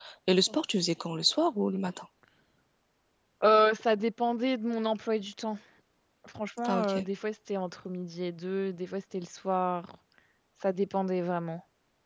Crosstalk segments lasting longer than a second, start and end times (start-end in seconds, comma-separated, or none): none